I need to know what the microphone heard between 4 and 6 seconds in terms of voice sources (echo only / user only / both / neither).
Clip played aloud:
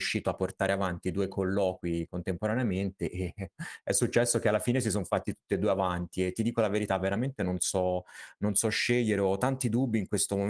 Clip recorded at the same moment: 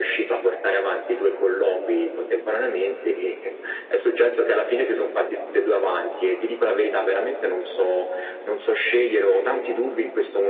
echo only